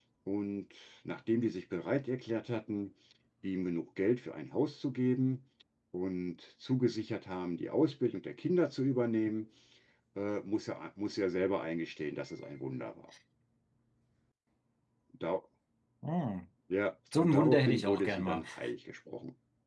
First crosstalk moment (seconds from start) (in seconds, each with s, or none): 17.2 s